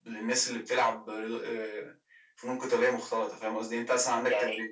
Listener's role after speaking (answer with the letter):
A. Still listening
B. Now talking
A